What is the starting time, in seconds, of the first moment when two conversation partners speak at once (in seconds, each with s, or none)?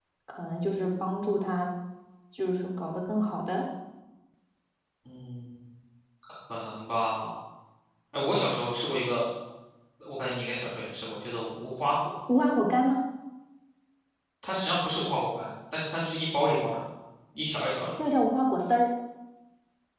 none